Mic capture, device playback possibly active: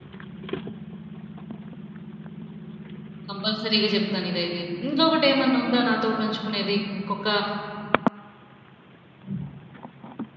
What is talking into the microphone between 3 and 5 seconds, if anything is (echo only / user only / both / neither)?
user only